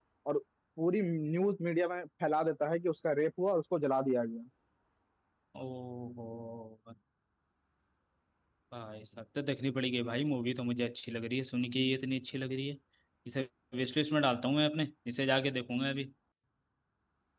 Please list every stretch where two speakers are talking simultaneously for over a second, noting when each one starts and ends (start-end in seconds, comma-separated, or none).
none